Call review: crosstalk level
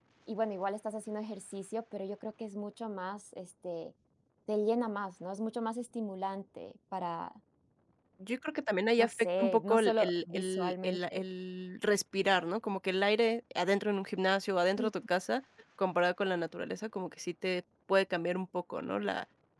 present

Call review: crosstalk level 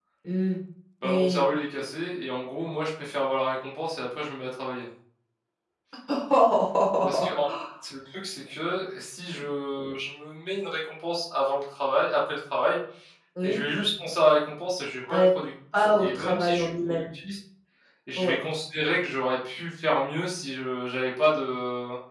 present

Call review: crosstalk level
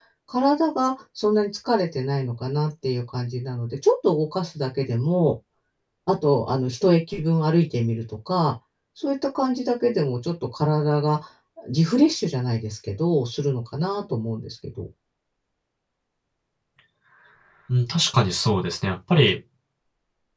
none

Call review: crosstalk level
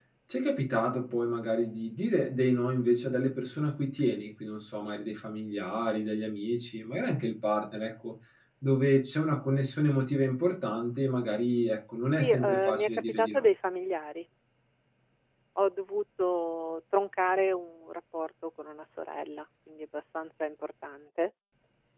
present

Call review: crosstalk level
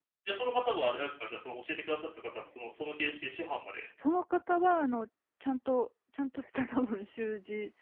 none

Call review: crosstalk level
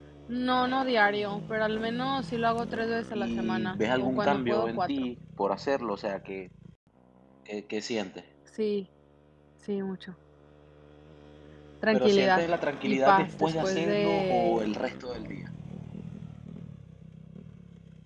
present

